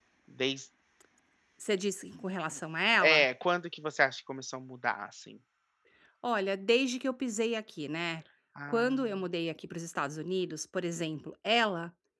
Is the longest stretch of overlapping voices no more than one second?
Yes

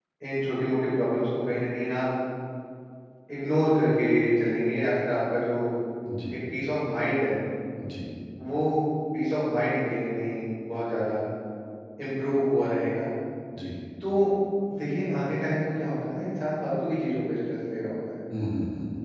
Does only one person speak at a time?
Yes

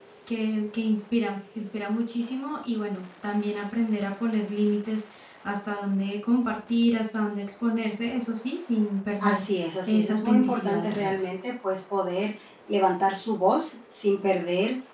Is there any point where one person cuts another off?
Yes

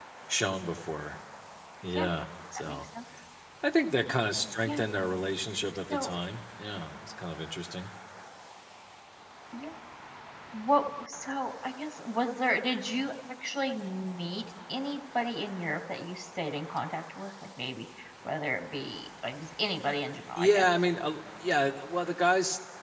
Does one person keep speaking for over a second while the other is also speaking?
No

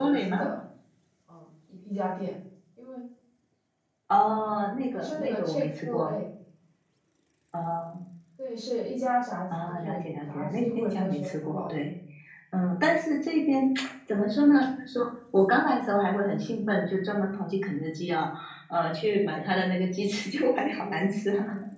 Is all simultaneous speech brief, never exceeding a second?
No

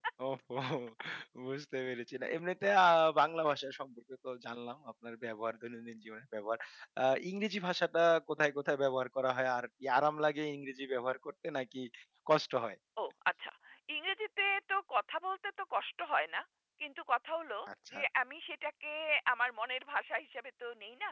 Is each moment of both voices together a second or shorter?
Yes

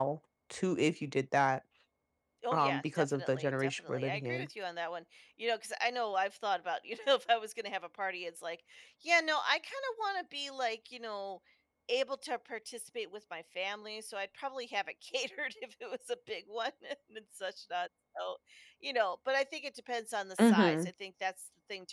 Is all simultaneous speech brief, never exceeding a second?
No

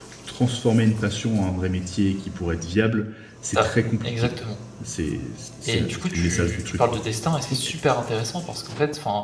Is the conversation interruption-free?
No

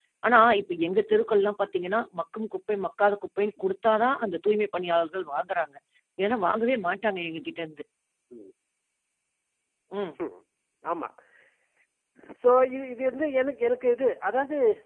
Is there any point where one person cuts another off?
No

